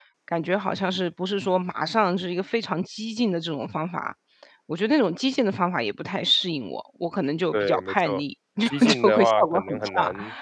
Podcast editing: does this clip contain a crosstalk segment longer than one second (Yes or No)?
Yes